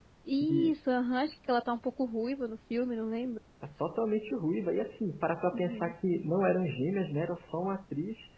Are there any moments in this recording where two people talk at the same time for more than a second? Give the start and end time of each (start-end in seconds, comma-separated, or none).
none